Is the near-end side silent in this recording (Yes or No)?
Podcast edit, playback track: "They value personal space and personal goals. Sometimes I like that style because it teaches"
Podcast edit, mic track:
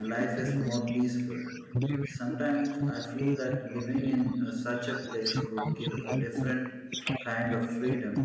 No